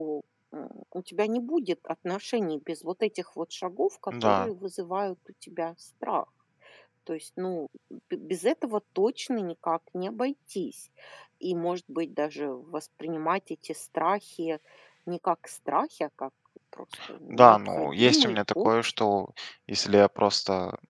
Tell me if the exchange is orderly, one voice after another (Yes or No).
No